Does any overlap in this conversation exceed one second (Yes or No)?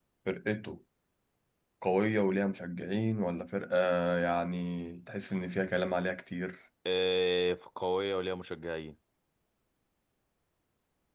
No